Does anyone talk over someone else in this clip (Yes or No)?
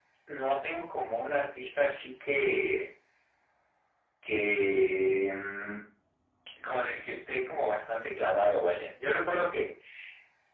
No